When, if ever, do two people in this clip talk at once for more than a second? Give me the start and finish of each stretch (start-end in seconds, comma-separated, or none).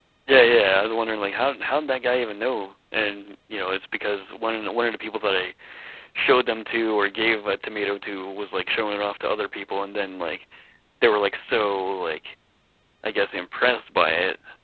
none